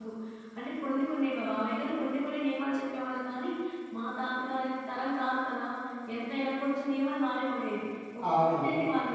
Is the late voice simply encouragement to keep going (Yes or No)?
Yes